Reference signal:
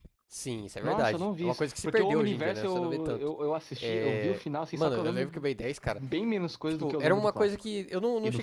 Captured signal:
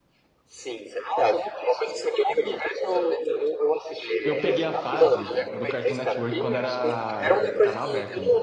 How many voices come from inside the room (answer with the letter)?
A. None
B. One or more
B